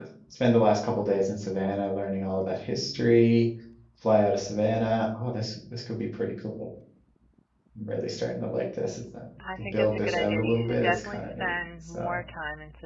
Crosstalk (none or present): present